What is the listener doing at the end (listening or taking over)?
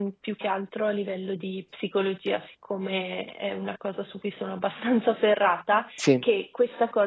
listening